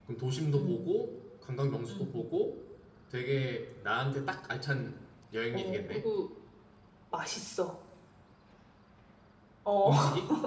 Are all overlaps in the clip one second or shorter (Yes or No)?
Yes